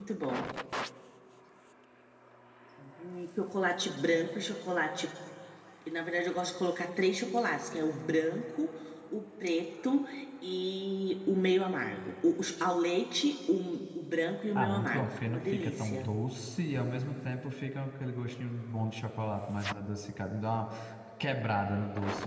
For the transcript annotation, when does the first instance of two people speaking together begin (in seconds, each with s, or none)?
14.6 s